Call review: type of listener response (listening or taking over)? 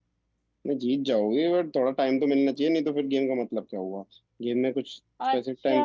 listening